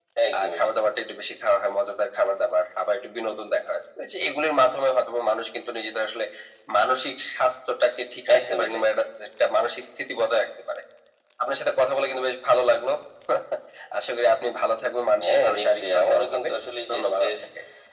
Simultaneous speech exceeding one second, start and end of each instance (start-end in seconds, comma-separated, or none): 15.2-16.5